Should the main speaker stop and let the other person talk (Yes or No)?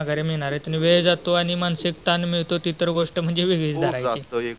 Yes